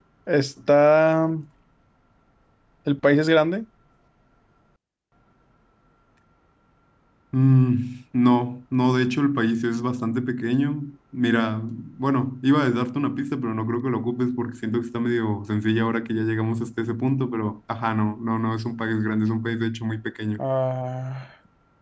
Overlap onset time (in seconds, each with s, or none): none